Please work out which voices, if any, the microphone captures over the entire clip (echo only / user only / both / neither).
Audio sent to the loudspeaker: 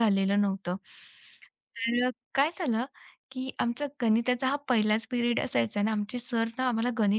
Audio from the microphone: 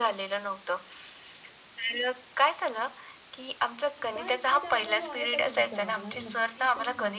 both